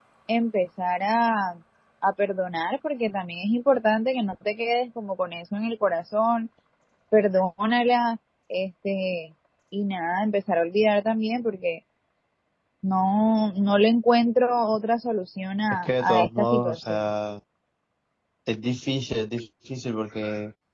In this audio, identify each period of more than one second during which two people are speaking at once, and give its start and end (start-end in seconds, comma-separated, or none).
15.8-17.0